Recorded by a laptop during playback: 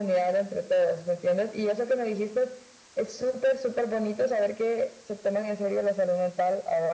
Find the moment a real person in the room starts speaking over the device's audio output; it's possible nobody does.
none

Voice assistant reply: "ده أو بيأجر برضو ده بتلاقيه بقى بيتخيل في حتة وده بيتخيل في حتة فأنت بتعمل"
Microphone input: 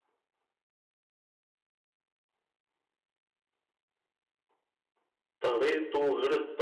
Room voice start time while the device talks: 5.4 s

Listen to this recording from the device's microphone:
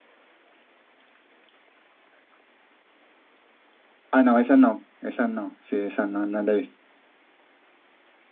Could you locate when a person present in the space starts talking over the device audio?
4.1 s

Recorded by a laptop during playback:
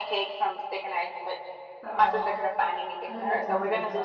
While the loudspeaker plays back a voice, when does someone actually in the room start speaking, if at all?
1.8 s

